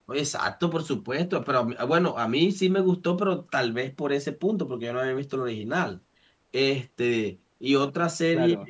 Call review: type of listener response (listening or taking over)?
taking over